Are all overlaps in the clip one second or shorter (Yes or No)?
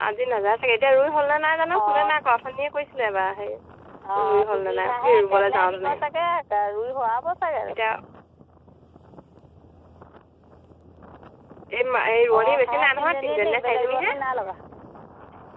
No